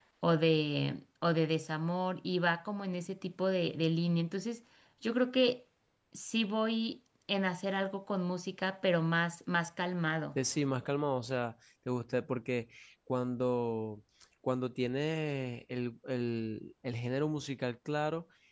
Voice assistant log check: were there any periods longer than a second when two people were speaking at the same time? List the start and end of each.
none

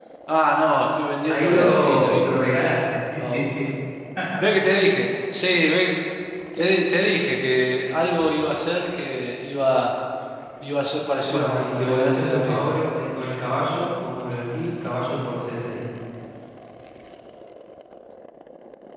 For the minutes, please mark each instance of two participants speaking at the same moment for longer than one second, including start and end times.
1.3-2.6, 11.2-12.8

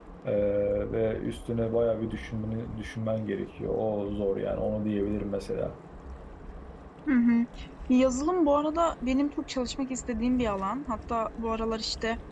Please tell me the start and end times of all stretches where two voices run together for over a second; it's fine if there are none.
none

